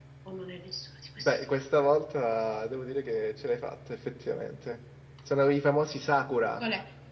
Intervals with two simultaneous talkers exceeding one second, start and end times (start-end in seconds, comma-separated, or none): none